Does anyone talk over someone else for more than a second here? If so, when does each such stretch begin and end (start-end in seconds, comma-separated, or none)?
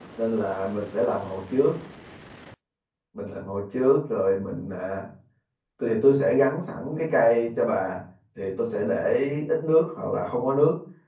none